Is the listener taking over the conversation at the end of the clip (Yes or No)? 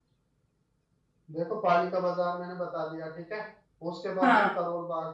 No